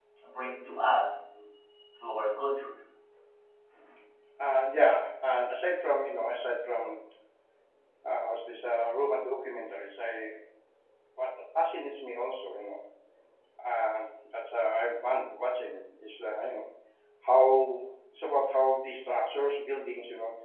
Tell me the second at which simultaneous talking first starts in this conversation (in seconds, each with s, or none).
none